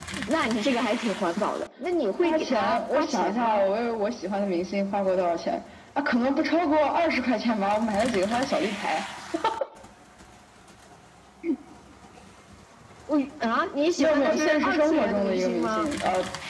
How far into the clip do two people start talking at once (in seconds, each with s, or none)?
2.2 s